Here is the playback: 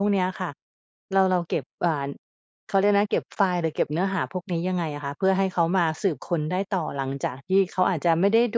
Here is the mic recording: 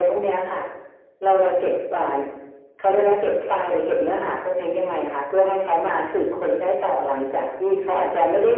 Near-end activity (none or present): none